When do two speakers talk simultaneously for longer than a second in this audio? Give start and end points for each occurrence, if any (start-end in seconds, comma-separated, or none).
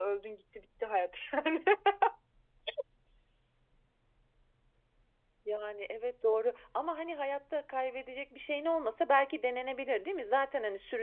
none